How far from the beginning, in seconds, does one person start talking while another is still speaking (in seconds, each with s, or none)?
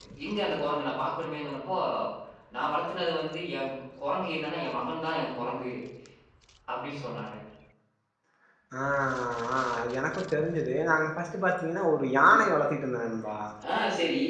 none